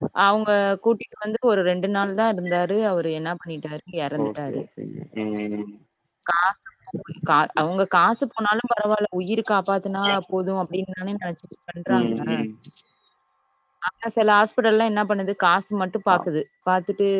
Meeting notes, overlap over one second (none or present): none